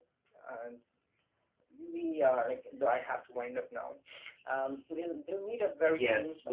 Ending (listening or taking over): taking over